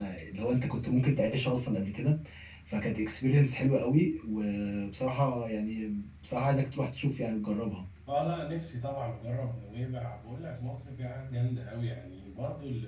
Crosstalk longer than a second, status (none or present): none